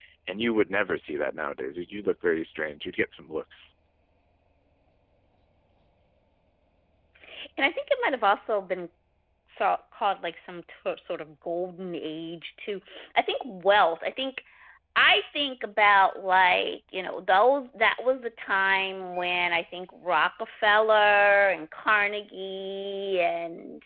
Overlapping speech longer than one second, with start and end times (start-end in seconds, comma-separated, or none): none